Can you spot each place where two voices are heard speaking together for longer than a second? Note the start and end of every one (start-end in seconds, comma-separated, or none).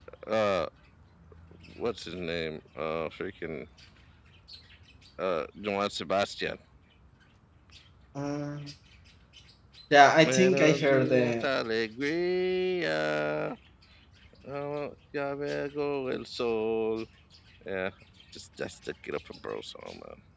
10.2-11.5